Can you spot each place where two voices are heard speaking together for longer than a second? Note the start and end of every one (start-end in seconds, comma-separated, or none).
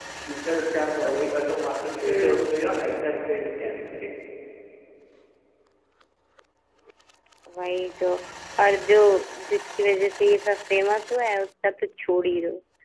none